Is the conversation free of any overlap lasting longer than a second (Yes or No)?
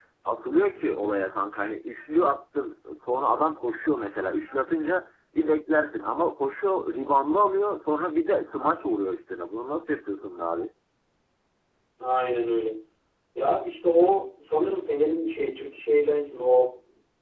Yes